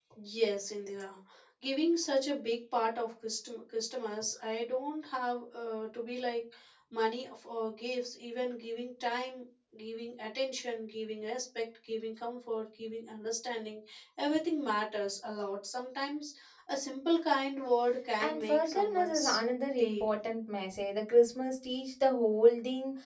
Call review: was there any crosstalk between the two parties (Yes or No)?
Yes